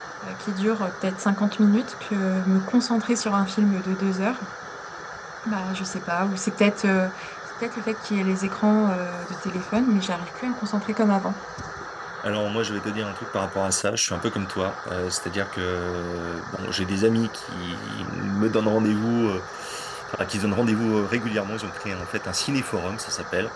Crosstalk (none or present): none